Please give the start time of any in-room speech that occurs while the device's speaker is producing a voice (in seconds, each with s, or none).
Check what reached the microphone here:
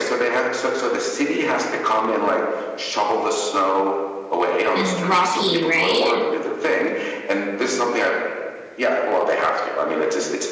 4.7 s